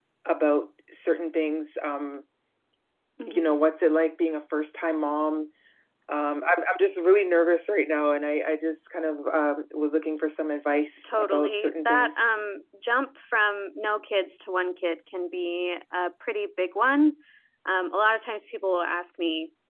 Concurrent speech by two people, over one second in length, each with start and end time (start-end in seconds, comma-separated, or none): 11.0-12.2